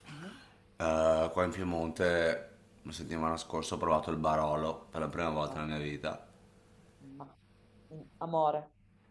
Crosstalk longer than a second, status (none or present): none